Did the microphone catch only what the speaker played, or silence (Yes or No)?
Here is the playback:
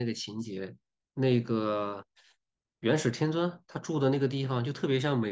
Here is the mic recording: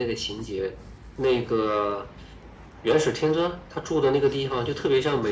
Yes